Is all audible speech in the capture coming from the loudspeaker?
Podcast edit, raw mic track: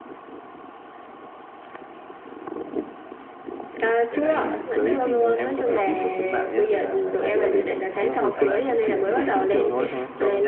No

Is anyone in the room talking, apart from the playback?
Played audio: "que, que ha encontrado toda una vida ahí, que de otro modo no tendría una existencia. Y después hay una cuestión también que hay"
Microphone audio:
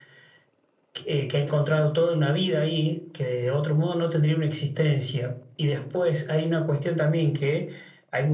No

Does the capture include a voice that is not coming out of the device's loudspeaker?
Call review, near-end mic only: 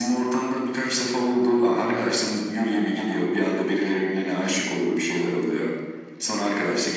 No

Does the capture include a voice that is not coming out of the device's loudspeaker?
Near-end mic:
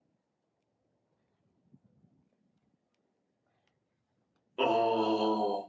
Yes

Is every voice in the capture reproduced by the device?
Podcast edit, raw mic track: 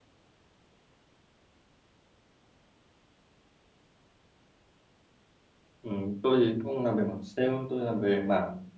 No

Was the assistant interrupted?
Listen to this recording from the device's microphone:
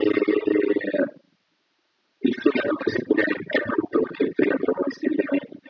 No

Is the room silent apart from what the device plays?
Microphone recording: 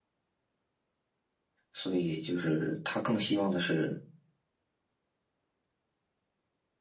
No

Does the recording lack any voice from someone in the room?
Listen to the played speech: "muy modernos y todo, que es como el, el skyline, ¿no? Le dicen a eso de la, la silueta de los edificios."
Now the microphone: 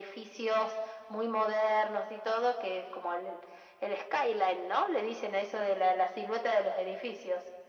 Yes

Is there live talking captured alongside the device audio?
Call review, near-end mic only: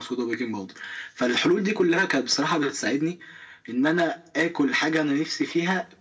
No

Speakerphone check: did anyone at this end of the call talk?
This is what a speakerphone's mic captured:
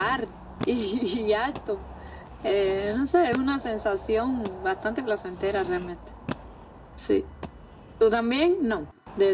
No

